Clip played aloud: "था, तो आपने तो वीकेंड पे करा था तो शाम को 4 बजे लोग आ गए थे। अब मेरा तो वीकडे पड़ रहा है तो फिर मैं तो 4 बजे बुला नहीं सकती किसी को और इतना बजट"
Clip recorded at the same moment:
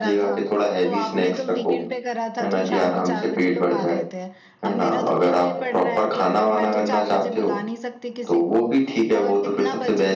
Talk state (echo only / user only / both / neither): both